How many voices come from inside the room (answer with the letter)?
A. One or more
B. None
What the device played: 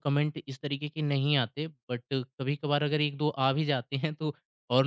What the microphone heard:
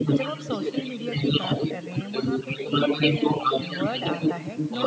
A